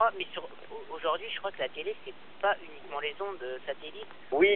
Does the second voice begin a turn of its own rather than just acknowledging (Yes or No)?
Yes